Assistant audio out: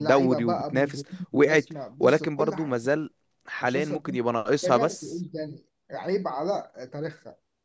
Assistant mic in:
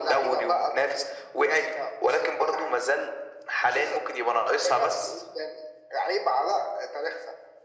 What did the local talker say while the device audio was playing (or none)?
none